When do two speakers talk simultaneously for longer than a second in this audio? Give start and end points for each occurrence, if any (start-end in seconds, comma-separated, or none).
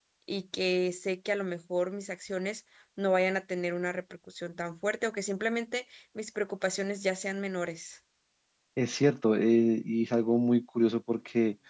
none